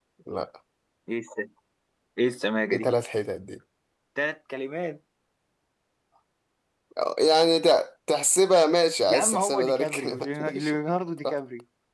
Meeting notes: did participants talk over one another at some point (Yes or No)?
Yes